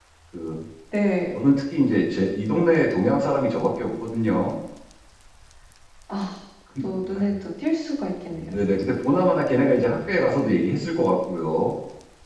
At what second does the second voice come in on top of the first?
none

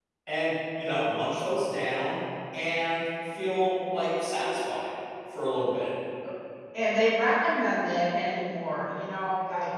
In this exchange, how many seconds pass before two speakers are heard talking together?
none

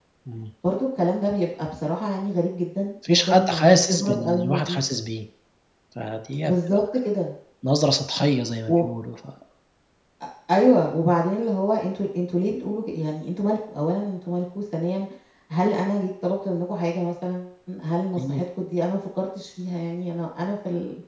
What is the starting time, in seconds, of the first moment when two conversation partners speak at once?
3.1 s

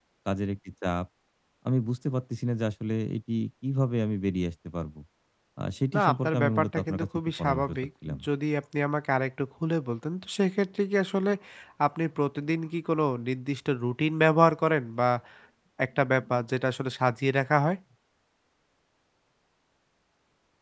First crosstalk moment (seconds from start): 5.9 s

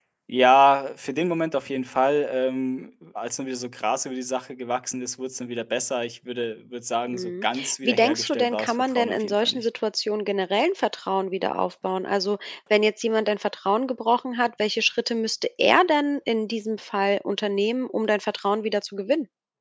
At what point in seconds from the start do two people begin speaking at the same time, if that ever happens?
7.1 s

